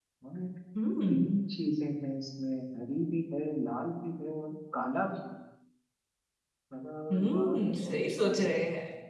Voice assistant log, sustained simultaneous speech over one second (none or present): present